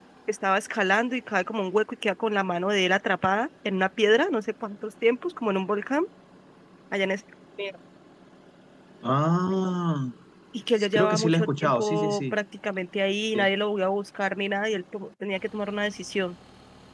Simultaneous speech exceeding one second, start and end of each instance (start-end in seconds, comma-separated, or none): 10.8-12.3